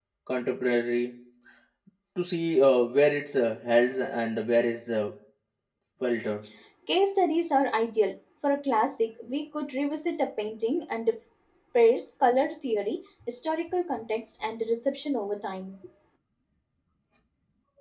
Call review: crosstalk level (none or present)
none